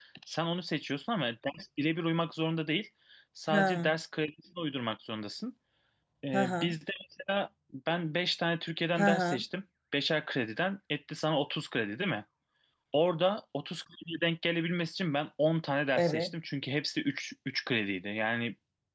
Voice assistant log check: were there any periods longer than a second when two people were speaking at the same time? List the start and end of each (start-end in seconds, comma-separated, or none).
none